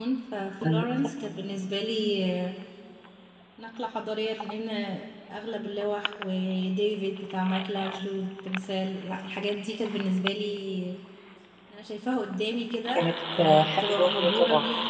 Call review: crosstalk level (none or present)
present